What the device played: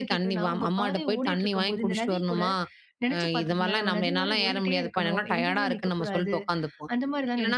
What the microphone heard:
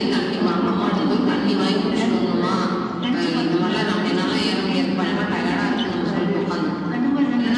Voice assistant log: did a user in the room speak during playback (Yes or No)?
No